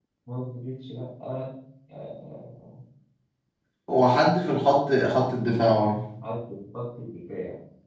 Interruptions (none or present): none